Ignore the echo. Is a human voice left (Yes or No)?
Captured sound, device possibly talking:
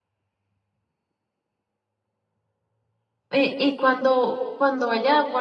Yes